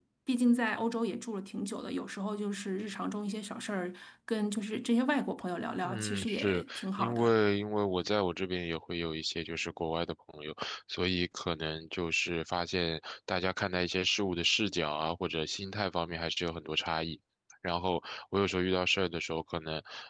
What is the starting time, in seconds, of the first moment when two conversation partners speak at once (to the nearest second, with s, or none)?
6 s